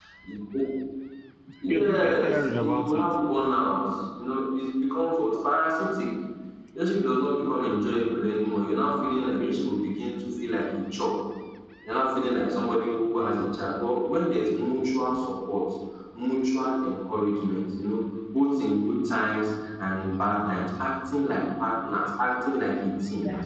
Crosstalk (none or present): present